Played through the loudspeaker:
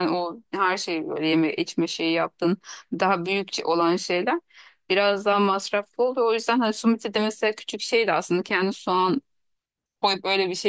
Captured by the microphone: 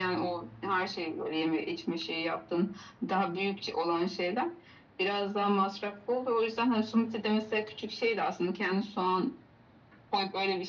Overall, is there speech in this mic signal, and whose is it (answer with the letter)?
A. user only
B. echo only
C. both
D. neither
B